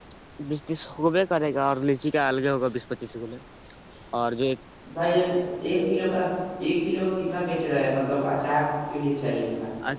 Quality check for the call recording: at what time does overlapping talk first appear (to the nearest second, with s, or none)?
none